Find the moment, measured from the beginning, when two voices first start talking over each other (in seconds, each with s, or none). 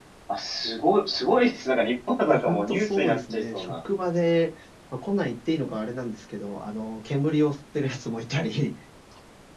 2.2 s